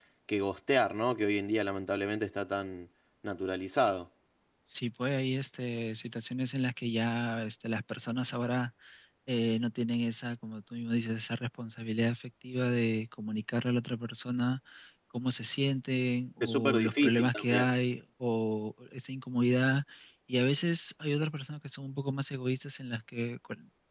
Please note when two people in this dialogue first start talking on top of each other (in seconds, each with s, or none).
16.4 s